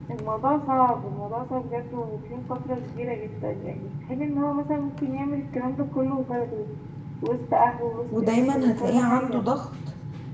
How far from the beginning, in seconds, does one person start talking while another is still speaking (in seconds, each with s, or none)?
8.1 s